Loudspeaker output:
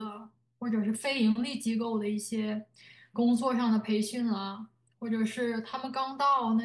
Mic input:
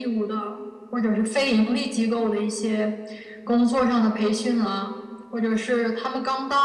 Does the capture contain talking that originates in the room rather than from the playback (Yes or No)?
No